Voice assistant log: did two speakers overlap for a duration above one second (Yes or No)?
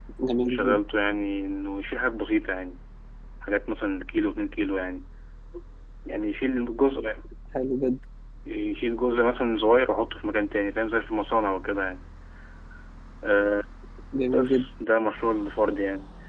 No